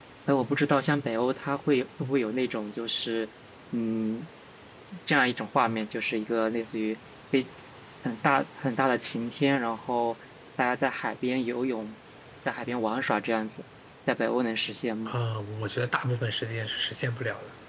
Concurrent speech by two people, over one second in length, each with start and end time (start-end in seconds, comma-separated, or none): none